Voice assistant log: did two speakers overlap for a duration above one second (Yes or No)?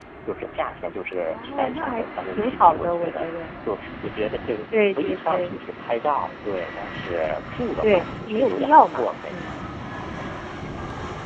Yes